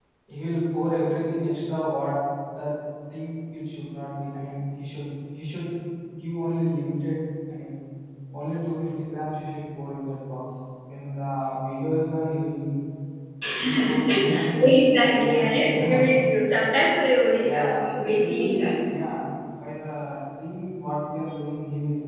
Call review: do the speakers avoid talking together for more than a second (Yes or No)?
No